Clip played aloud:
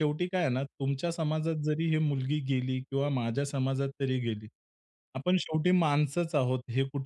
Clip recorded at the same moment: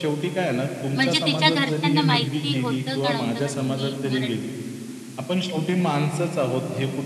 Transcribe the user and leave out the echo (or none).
म्हणजे तिच्या घरच्यांना माहिती होतं का नव्हतं का तुम्ही मराठी